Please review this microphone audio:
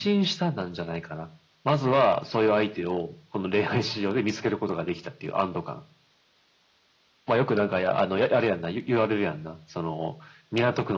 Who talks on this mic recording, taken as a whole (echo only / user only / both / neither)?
echo only